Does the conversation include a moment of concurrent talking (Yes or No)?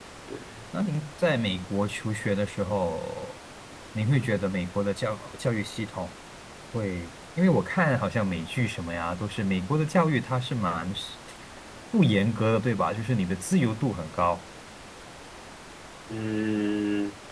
No